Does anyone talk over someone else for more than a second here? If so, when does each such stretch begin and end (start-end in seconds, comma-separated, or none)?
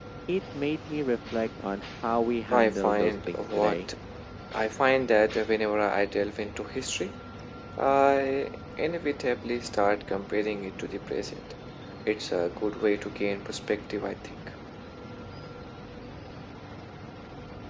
2.5-3.8